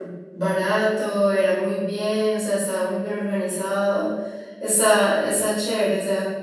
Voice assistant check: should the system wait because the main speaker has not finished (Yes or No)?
Yes